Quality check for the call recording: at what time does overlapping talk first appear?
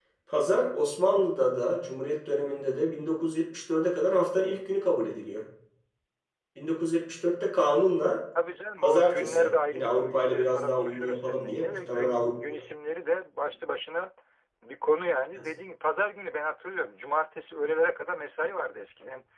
9 s

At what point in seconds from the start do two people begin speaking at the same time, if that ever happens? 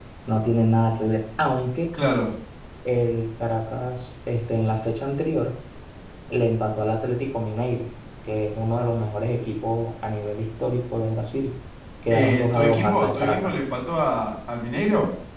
12 s

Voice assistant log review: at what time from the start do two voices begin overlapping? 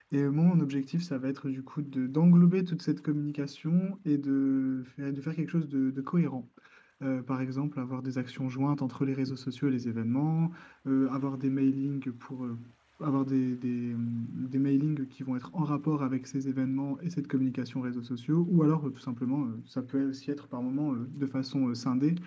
none

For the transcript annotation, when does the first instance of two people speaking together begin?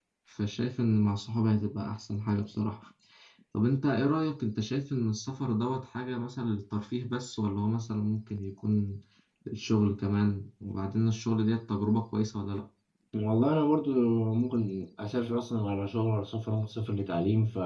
none

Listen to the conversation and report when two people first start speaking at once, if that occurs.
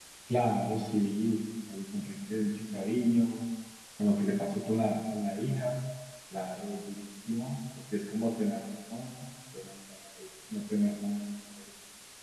none

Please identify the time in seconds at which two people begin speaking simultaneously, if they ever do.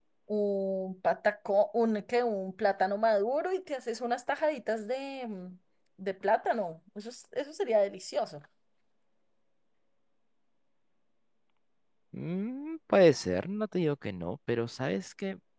none

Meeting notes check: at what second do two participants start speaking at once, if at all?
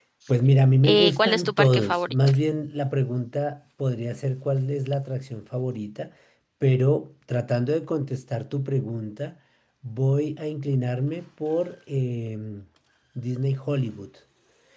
1 s

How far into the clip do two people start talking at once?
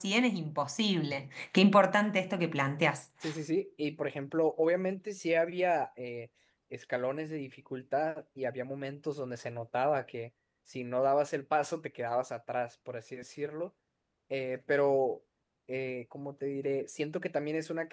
none

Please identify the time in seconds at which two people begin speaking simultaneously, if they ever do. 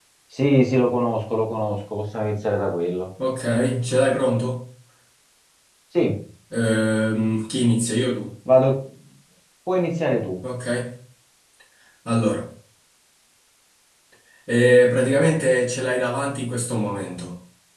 none

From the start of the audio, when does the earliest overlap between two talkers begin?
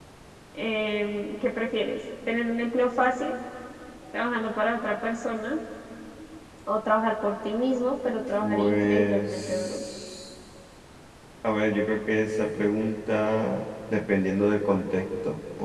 8 s

